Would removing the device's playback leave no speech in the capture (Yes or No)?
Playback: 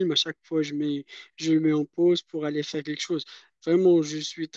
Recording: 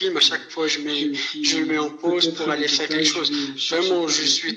No